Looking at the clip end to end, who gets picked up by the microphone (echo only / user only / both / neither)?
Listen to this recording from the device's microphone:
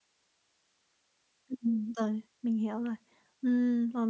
user only